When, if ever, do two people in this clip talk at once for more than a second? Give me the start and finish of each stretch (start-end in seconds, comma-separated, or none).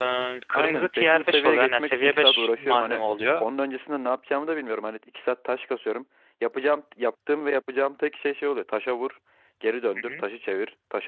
0.5-3.0